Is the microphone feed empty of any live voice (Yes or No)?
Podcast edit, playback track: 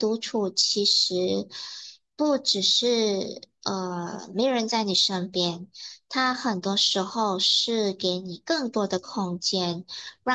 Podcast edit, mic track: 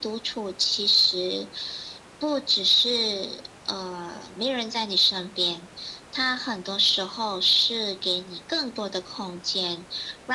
Yes